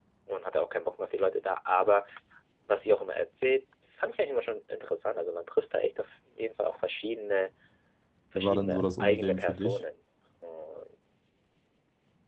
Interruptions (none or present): present